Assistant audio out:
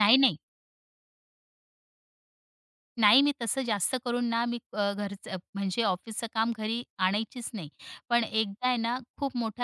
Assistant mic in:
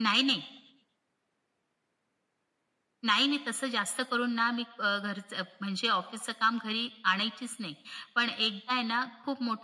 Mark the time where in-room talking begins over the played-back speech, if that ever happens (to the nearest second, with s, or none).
none